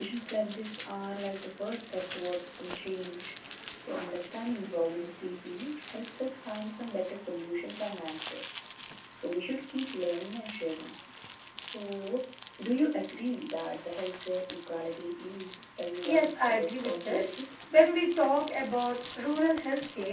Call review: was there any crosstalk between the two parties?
Yes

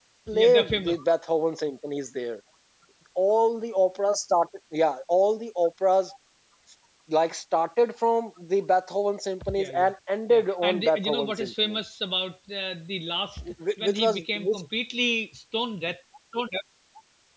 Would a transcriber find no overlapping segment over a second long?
No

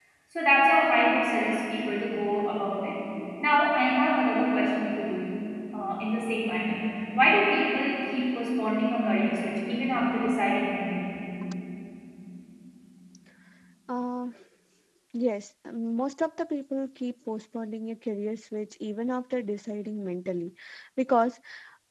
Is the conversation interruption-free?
Yes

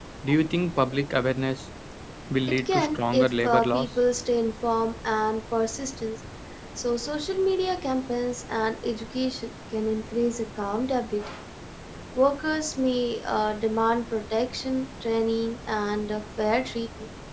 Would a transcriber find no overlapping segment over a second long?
No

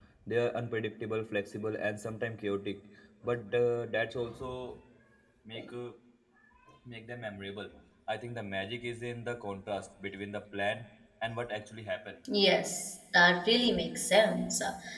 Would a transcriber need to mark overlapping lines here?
No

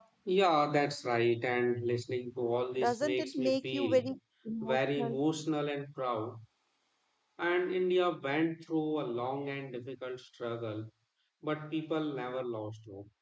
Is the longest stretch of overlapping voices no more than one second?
No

